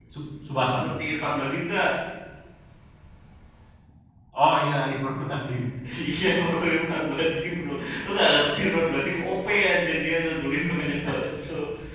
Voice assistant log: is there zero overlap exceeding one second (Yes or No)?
Yes